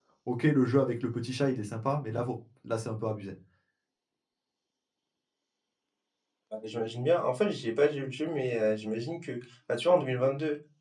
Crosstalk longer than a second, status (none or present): none